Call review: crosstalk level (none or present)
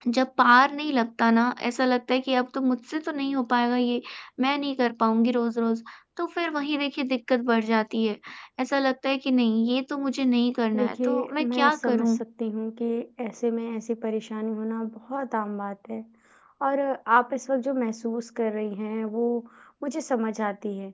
present